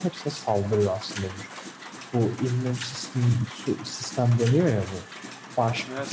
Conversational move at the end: listening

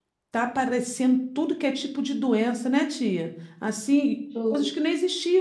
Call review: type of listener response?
listening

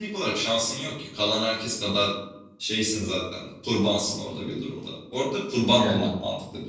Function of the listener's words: listening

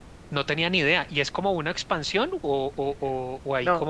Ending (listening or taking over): taking over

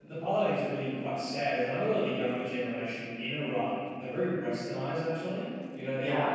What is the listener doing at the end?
listening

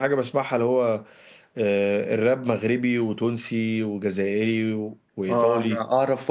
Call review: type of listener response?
taking over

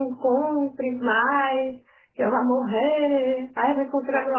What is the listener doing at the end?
taking over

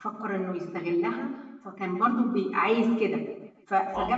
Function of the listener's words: listening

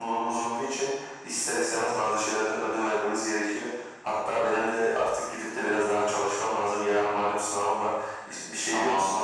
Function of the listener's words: taking over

